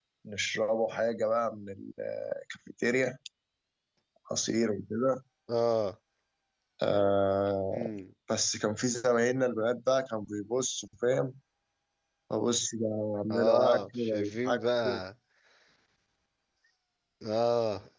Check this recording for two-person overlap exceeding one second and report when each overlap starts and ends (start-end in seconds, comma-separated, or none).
13.3-15.0